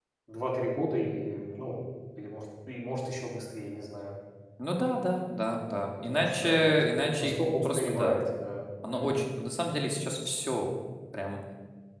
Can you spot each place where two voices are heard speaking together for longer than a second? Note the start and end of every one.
6.0-8.2

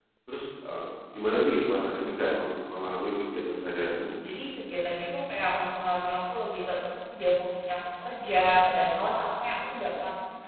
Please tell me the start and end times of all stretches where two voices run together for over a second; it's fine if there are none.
none

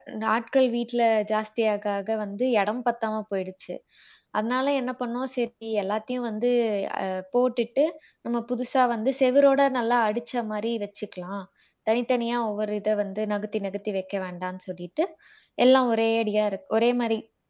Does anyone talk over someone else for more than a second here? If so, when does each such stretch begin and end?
none

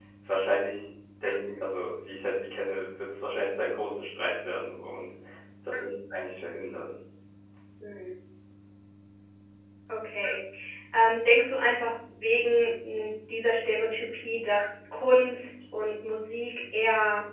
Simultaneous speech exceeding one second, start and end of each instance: none

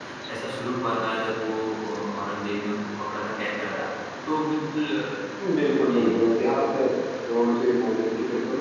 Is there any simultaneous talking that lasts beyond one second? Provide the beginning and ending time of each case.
none

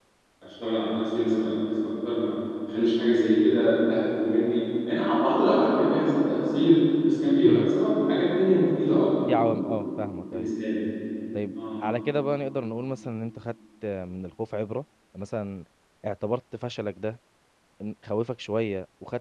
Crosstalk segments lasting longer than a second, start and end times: none

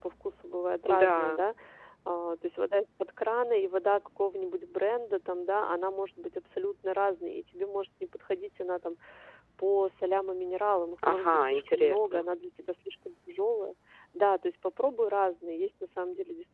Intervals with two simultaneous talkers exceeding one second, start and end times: 11.1-12.3

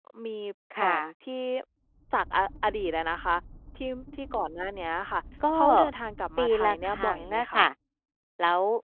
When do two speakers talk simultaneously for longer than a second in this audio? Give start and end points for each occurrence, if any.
6.4-7.6

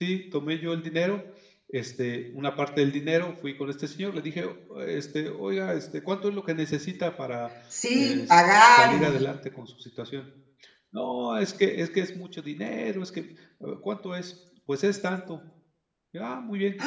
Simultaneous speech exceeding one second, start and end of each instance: 8.0-9.2

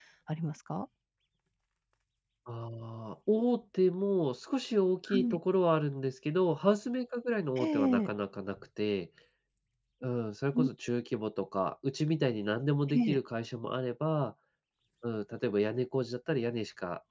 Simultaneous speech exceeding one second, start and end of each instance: none

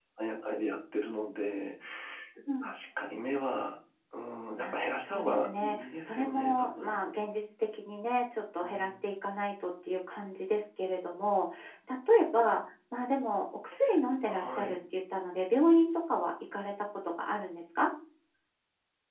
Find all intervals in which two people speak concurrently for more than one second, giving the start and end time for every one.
4.6-7.0

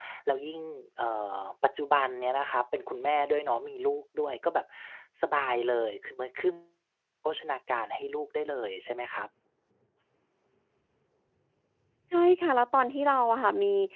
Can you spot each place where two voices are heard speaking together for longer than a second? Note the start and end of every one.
none

